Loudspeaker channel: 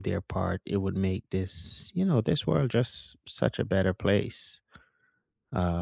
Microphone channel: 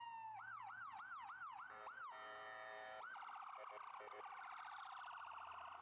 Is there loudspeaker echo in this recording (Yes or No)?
No